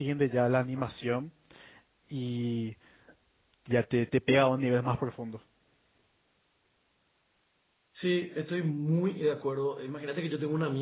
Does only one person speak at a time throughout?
Yes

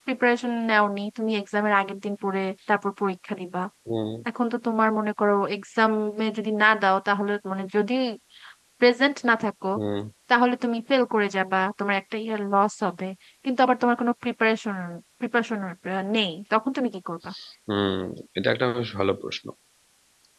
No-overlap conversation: Yes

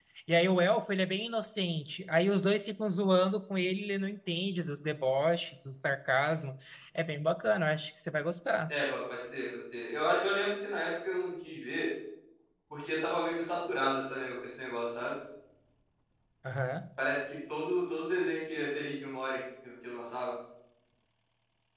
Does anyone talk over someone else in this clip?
No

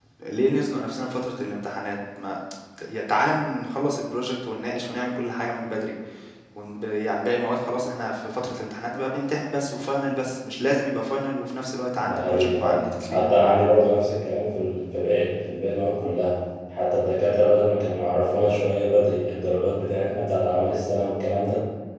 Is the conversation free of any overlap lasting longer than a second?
No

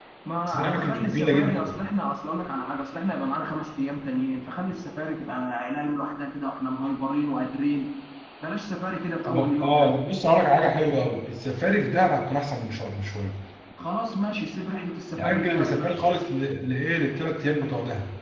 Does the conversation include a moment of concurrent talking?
Yes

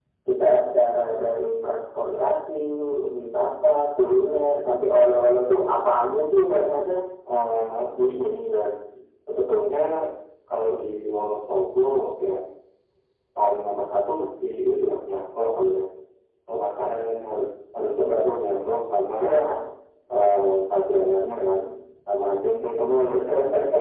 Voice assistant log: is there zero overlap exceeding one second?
Yes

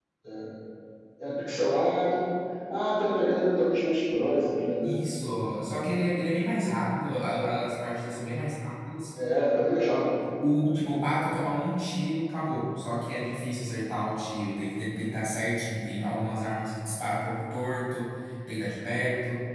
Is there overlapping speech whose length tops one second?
No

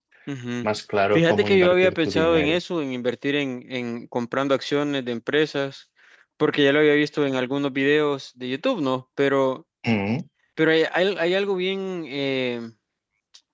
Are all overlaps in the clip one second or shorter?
No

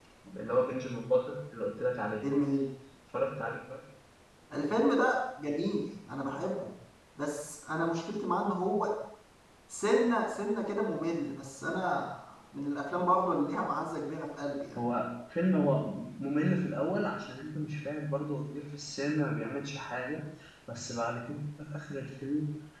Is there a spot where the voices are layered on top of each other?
No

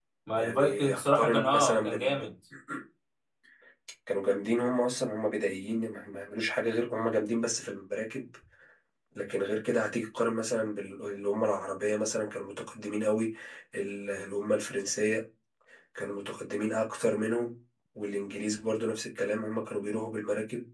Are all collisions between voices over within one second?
No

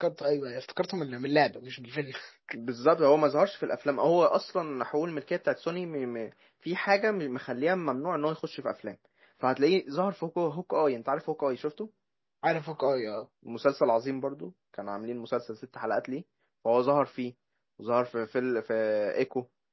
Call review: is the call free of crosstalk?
Yes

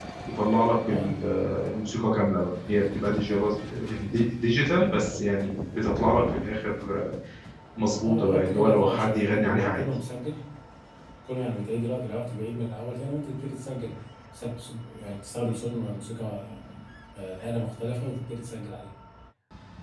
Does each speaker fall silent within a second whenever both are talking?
No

